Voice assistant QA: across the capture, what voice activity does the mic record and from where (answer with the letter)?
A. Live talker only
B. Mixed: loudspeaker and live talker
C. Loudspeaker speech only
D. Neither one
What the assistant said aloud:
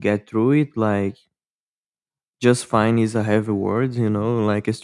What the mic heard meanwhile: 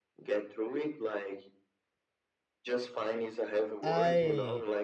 B